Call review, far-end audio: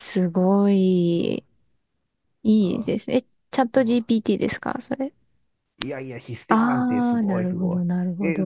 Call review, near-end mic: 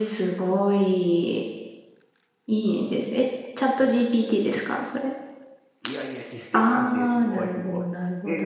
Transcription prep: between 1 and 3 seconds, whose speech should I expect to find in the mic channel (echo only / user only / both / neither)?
echo only